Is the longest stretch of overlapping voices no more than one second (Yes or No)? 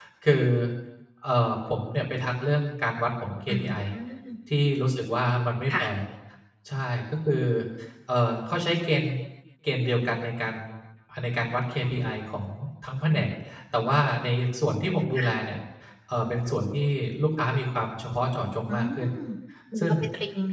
Yes